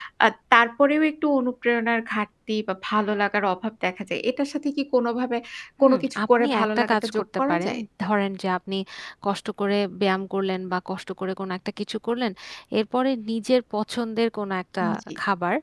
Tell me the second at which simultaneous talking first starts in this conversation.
6 s

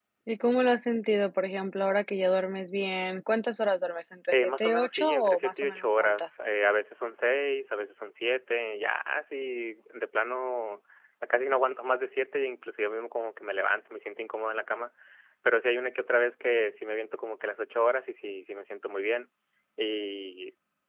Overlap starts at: 4 s

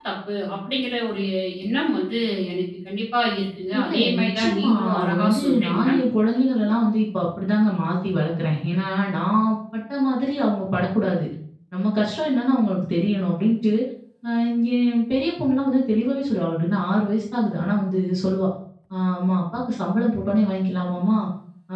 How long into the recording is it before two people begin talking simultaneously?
4 s

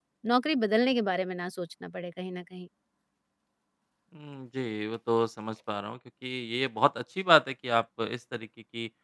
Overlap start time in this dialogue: none

